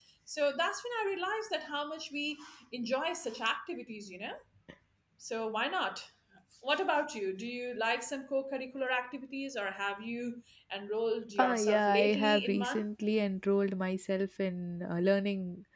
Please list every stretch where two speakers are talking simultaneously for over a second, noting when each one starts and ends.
11.4-12.8

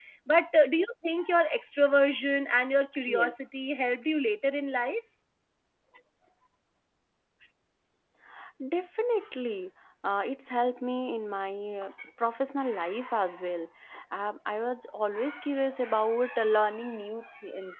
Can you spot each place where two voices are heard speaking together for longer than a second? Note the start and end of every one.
none

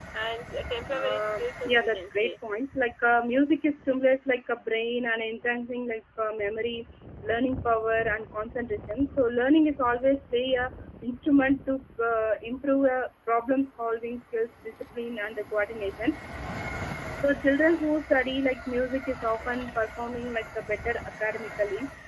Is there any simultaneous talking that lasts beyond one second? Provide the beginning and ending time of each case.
0.9-2.3

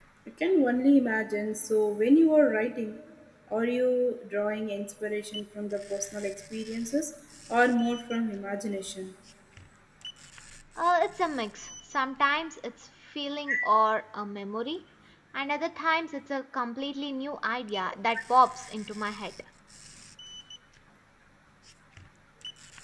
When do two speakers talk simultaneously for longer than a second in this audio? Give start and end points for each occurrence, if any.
none

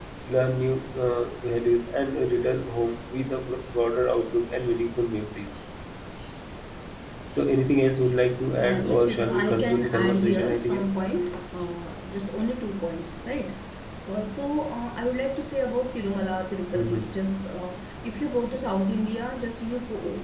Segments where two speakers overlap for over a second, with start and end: 8.6-10.8

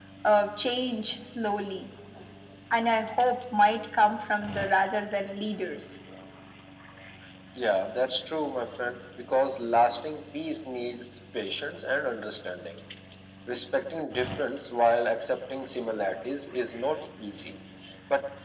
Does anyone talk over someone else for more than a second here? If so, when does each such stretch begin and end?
none

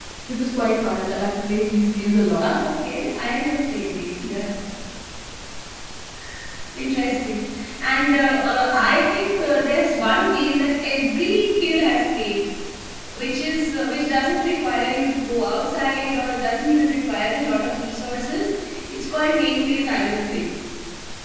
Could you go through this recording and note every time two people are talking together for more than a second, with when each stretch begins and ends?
none

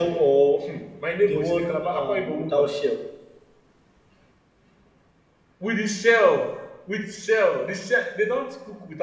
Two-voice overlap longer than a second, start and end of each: 1.3-2.7

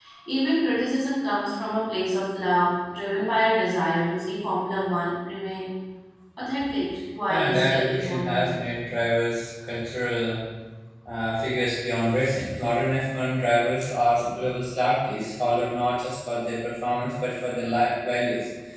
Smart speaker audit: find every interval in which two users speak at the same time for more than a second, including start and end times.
7.3-8.6

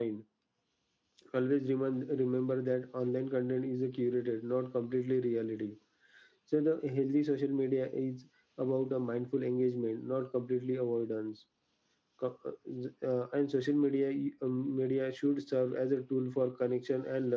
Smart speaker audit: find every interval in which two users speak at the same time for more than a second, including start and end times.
none

